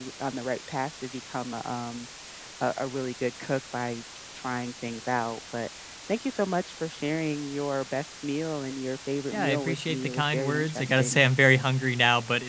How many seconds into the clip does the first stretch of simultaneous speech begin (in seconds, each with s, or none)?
9.3 s